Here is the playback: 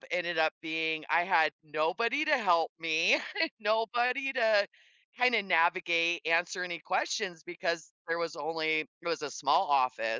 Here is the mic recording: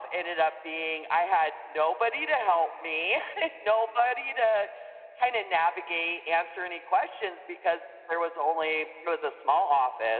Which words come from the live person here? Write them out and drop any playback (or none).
none